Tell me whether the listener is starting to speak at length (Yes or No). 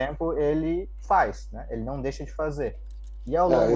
Yes